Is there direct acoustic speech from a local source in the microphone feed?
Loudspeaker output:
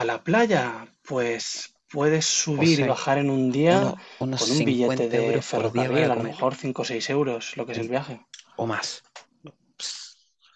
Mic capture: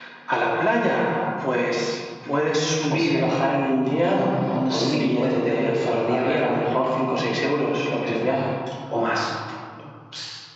No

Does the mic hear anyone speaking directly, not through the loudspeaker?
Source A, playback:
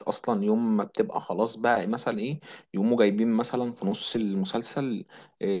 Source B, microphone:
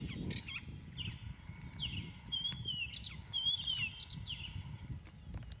No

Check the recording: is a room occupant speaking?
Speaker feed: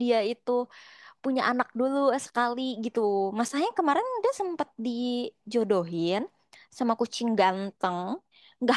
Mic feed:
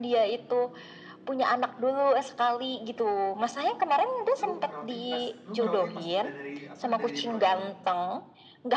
Yes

